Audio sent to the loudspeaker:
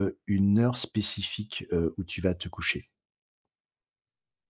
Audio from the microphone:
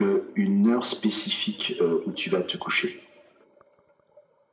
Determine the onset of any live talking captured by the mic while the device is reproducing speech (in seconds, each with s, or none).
none